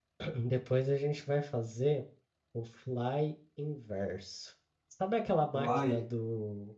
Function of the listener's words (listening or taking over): listening